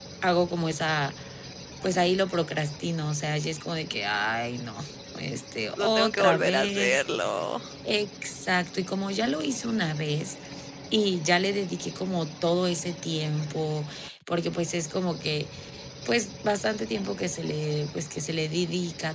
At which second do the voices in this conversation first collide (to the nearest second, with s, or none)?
6 s